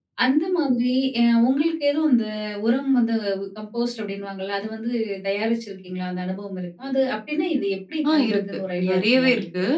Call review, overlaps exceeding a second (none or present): present